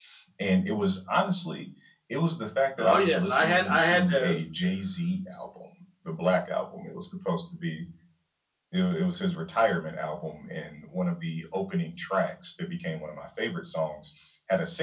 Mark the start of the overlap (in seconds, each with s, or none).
2.8 s